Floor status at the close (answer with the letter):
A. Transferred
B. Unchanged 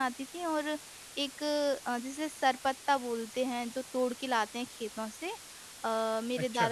B